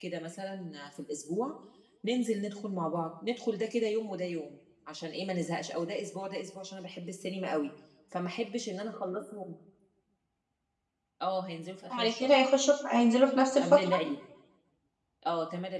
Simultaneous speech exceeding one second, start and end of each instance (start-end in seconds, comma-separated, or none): none